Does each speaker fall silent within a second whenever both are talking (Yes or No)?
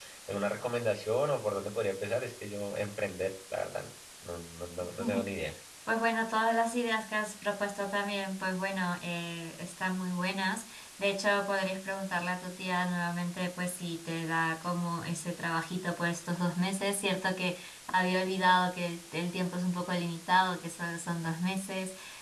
Yes